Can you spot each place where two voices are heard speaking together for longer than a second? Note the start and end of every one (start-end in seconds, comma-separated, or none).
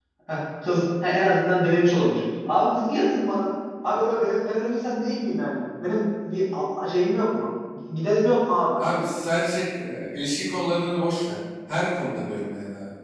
none